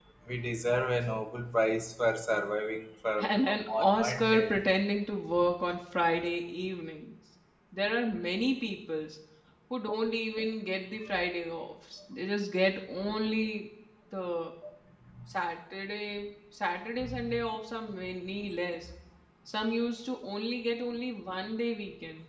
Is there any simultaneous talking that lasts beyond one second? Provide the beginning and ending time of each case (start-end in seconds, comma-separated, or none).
3.3-4.6